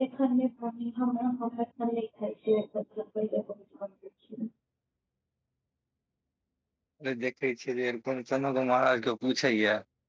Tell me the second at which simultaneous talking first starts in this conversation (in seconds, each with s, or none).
none